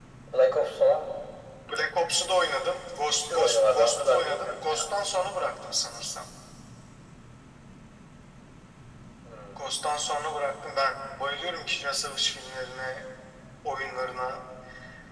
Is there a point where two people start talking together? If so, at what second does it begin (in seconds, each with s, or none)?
3.1 s